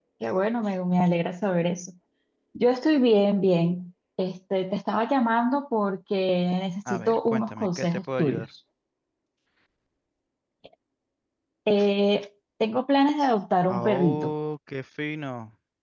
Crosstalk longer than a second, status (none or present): present